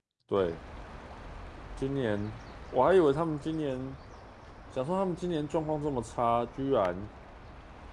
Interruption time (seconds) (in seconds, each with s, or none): none